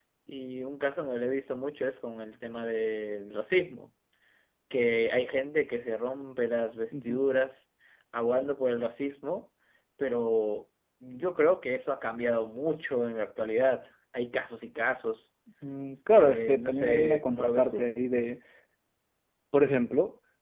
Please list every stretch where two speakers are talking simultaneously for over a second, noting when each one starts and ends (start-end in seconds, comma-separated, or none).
16.1-17.9